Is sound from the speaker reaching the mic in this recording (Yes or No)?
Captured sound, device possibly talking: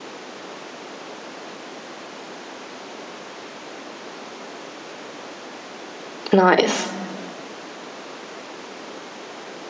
No